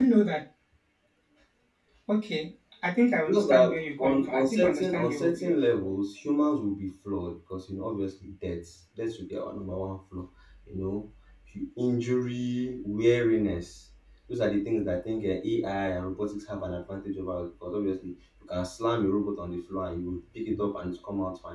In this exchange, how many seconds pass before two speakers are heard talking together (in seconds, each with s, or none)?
3.3 s